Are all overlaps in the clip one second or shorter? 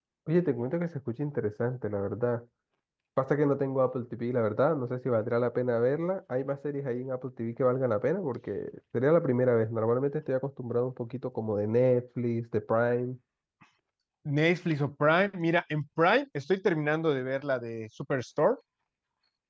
Yes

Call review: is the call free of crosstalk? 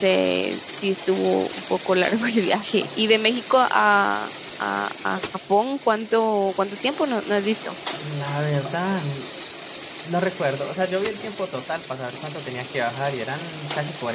Yes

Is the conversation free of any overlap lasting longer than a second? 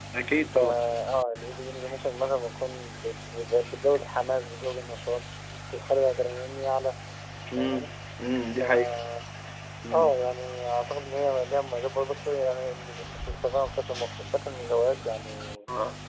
Yes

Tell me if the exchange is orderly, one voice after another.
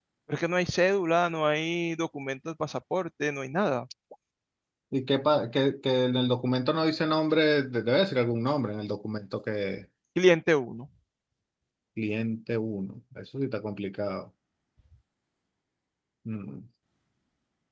Yes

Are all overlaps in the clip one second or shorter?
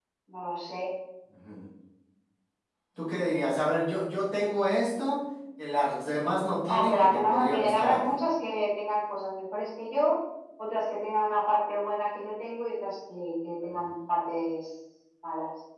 No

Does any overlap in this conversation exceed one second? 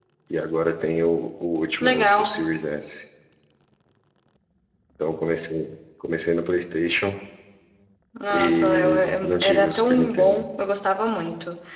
Yes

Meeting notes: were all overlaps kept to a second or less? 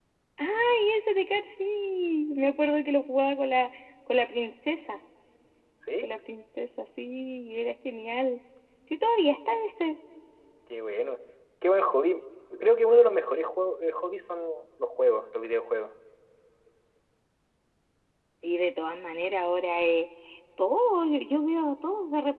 Yes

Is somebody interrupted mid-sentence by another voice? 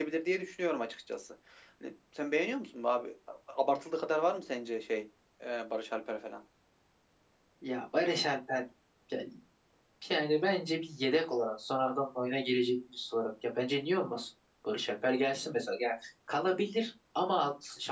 No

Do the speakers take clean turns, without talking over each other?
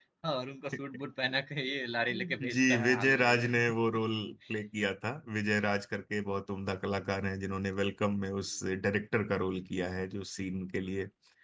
No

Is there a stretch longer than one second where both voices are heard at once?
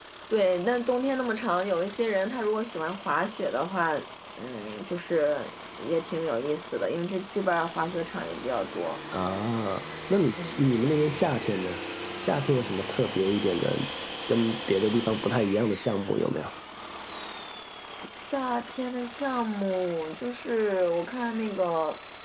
No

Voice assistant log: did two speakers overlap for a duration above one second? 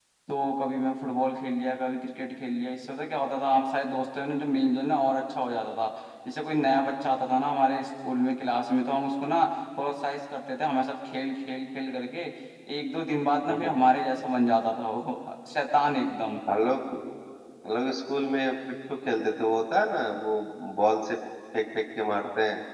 No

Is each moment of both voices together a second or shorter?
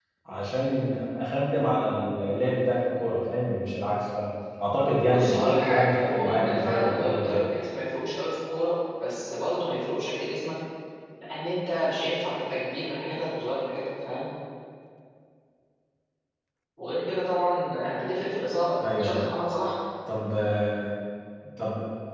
No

